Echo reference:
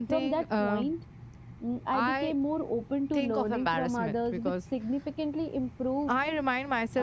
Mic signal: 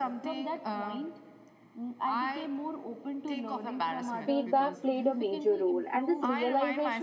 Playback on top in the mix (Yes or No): No